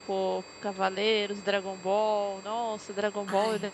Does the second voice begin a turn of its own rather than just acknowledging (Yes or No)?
No